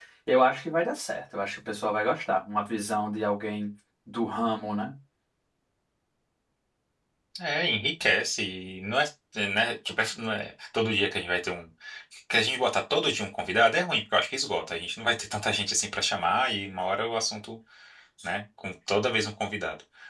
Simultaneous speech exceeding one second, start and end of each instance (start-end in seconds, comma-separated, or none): none